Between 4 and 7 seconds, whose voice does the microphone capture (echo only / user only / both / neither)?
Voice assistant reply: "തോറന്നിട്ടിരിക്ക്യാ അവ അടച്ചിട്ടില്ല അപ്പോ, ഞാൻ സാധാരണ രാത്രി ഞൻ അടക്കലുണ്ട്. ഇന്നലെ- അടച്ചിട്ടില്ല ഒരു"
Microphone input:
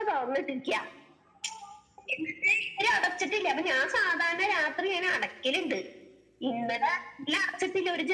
echo only